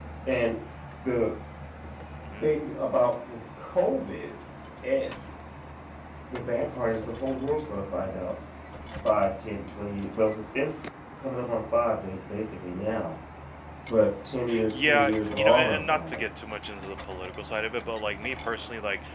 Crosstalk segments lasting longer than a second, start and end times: 14.7-16.3

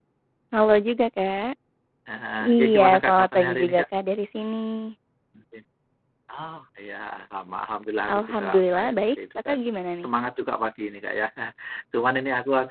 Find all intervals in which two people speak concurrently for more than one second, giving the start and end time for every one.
2.4-3.8, 8.1-9.5

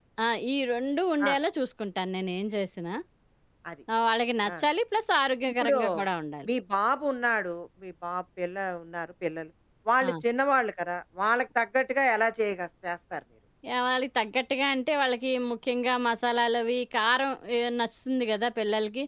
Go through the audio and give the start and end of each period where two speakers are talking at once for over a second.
none

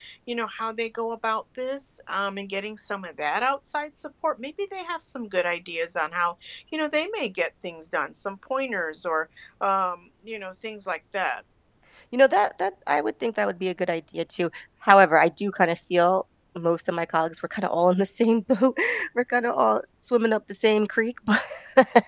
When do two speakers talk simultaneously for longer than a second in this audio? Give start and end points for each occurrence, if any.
none

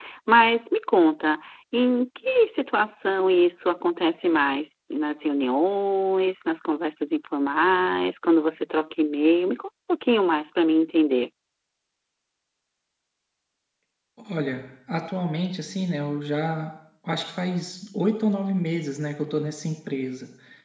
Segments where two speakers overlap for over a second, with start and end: none

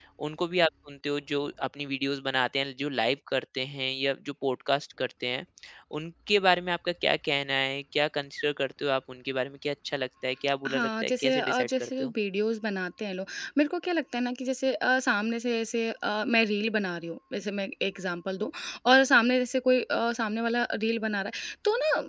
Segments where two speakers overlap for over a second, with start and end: 10.7-12.1

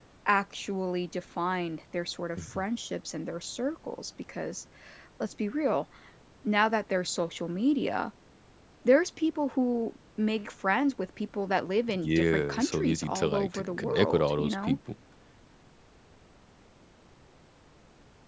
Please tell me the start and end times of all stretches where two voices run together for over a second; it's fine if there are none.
12.0-14.8

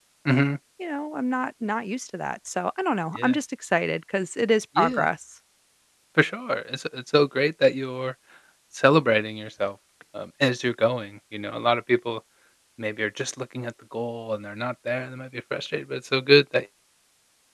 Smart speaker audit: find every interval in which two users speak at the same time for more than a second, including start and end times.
none

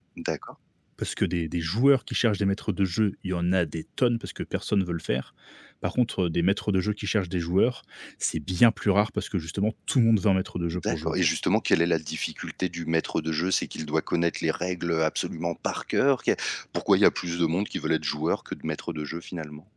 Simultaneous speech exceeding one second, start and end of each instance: none

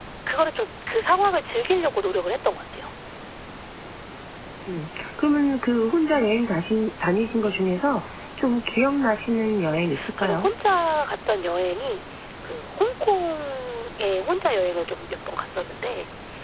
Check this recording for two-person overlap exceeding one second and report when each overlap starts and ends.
none

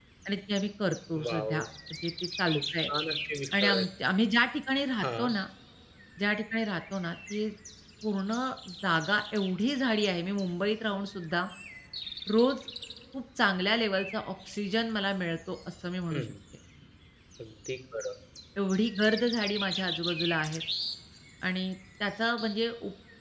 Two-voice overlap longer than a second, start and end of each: none

